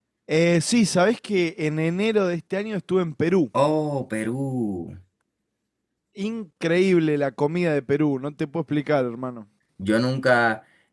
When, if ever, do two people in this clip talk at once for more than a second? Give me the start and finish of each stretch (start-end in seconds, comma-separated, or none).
none